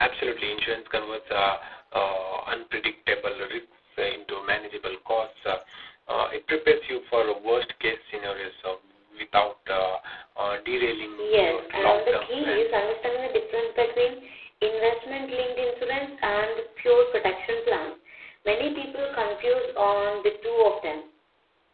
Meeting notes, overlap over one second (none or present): present